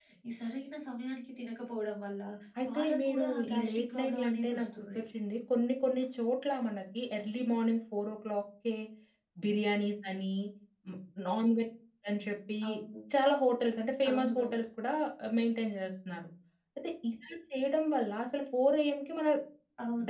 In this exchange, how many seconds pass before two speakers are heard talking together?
2.7 s

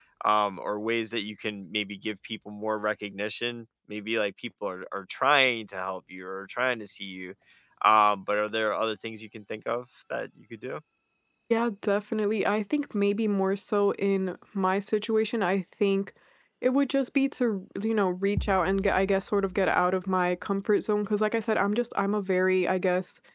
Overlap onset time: none

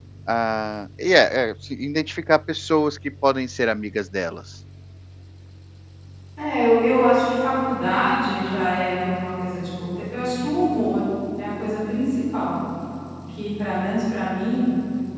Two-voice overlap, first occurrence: none

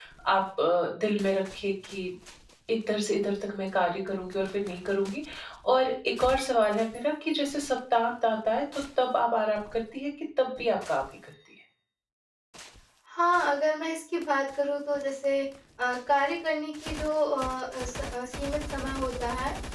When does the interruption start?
none

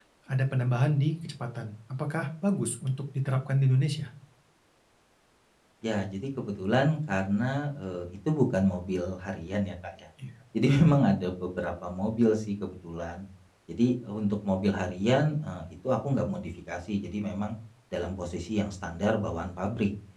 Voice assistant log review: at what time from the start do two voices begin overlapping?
none

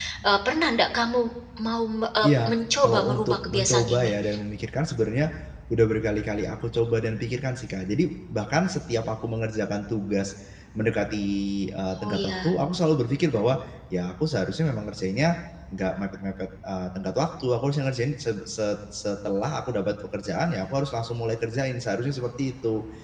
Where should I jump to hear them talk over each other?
2.2 s

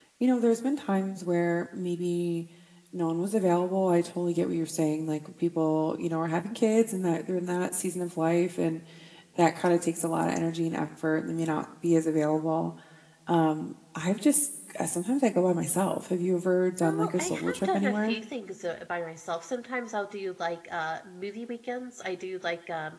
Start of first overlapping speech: 16.8 s

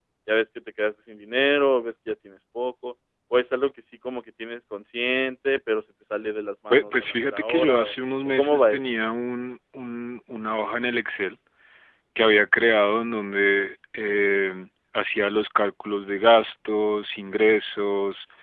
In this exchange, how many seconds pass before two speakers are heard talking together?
6.7 s

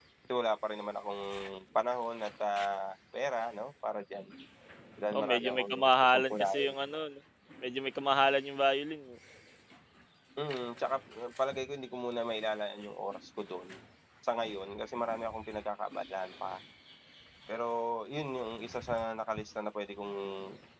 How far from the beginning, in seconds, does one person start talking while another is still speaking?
5.1 s

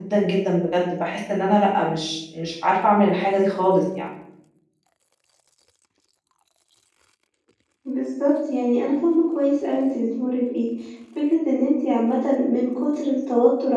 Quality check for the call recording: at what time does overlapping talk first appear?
none

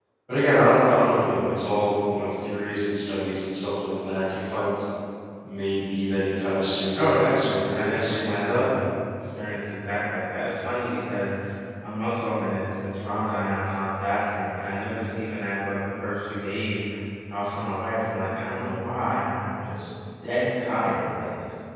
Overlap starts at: 7.0 s

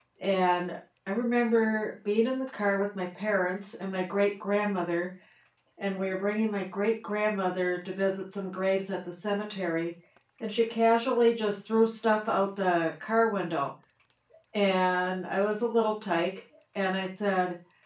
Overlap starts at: none

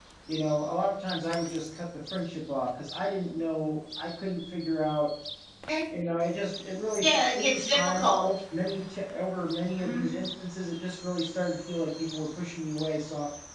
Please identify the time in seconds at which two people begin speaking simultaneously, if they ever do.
7.0 s

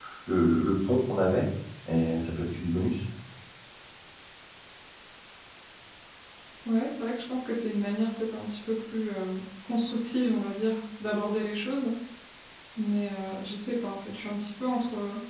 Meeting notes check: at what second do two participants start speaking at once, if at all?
none

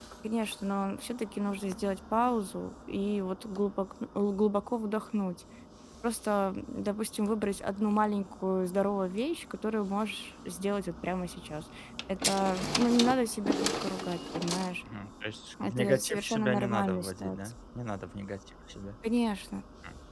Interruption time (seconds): 15.6 s

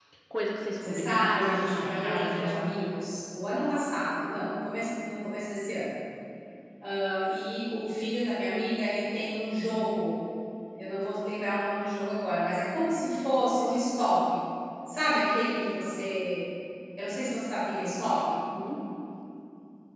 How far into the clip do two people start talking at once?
0.8 s

